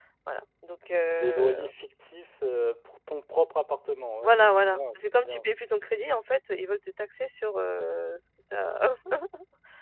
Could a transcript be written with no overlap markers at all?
No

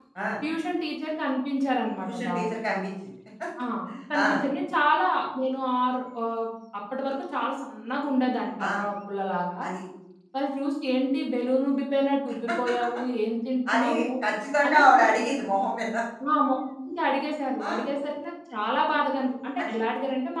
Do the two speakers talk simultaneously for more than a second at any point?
No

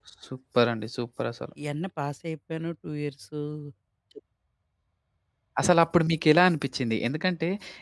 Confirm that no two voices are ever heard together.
Yes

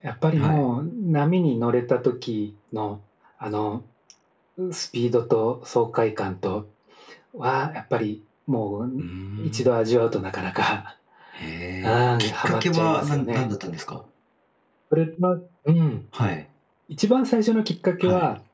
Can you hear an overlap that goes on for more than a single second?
Yes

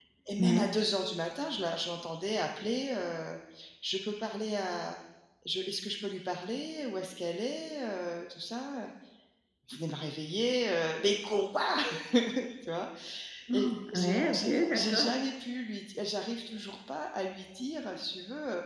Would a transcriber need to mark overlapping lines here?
Yes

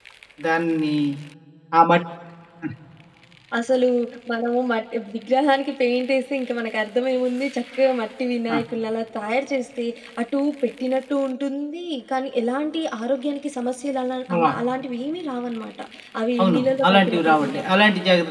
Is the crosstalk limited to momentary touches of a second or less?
No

